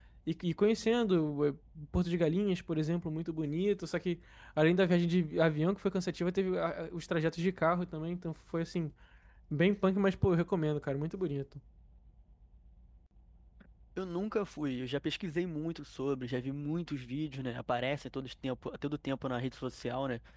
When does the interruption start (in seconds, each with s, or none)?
none